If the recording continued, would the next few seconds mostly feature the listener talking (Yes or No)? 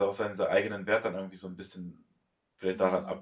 Yes